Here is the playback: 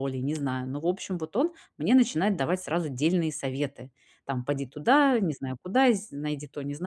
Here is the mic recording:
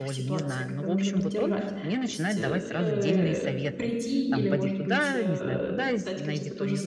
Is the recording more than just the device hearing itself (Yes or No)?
Yes